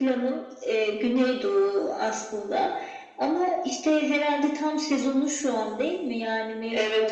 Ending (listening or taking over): taking over